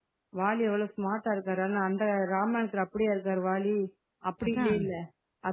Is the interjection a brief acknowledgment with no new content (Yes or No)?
Yes